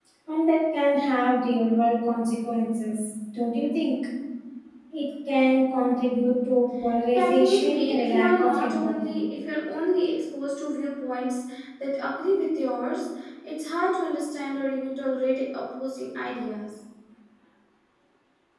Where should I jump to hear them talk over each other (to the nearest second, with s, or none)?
7 s